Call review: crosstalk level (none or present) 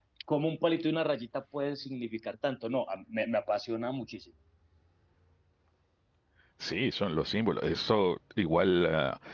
none